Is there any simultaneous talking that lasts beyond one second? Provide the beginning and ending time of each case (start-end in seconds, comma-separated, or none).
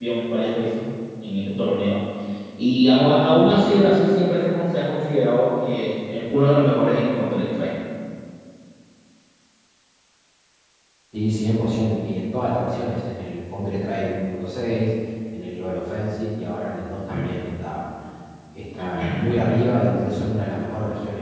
none